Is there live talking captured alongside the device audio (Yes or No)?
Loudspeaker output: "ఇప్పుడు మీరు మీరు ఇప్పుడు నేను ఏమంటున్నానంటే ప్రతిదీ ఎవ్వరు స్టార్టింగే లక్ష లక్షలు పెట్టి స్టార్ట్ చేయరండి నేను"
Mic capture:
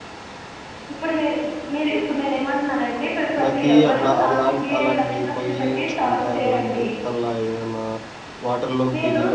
Yes